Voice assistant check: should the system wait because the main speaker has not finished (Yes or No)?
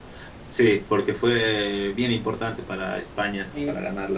No